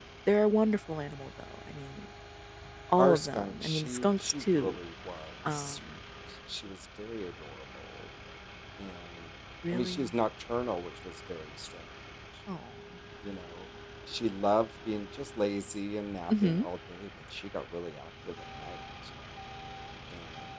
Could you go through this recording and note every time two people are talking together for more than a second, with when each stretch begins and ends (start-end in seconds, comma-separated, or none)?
3.0-4.8